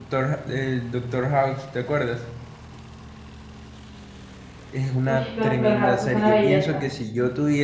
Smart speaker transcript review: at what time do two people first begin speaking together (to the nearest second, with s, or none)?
5 s